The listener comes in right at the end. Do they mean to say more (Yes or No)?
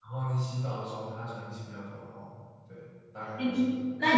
Yes